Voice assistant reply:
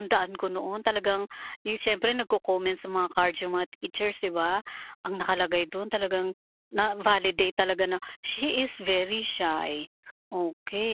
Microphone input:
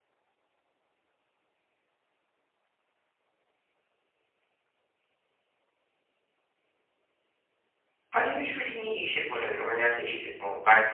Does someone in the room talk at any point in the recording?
Yes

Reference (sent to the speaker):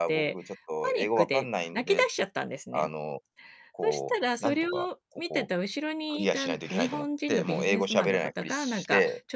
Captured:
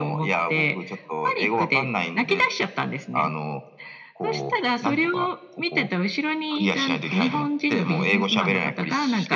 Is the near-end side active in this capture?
No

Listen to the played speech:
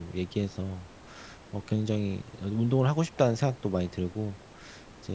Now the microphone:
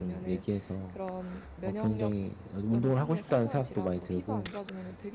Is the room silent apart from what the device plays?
No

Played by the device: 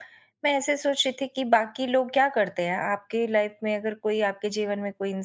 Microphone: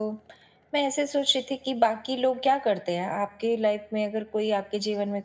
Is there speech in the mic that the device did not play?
No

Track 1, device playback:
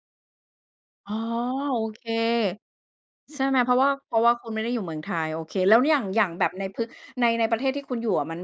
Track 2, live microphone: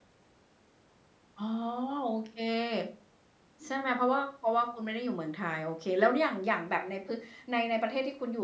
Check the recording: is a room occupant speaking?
No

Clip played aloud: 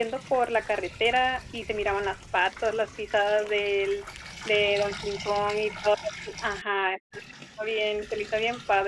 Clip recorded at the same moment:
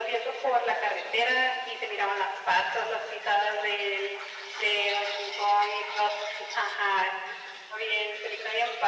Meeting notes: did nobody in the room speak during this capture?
Yes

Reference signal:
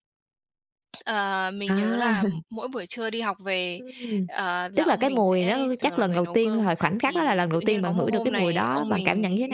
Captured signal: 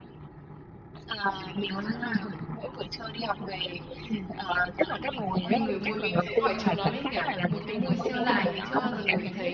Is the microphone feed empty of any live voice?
No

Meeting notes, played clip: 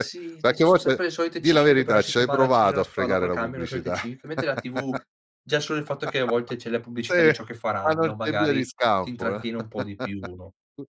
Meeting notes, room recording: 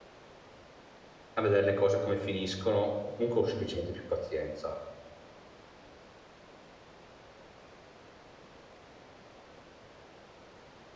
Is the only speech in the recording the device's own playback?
No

